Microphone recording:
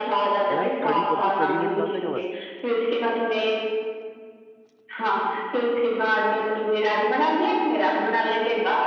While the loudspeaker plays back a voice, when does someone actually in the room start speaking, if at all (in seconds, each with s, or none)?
0.5 s